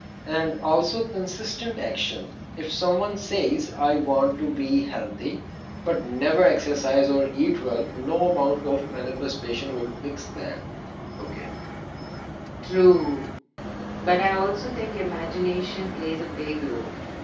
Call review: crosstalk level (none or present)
none